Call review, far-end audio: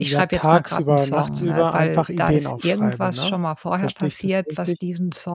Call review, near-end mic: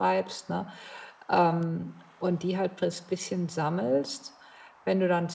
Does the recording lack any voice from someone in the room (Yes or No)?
No